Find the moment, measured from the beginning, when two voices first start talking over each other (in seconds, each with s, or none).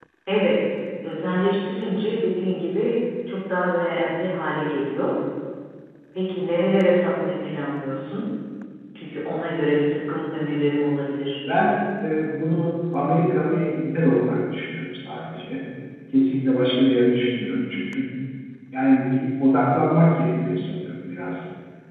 none